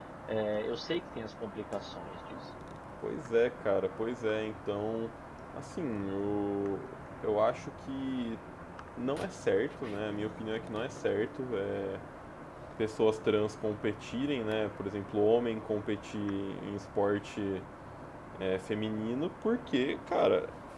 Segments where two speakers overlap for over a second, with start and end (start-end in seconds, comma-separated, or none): none